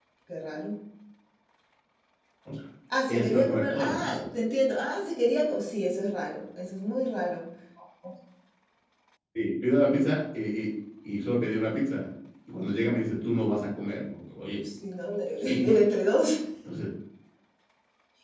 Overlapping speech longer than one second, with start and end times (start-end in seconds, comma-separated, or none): 3.1-4.3